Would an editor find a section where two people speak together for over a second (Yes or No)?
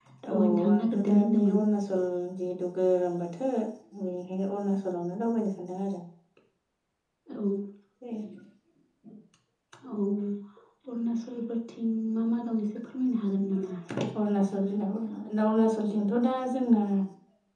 Yes